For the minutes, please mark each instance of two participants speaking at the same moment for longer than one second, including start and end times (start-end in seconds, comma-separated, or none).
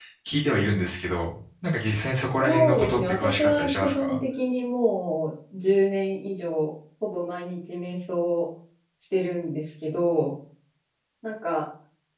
2.4-4.2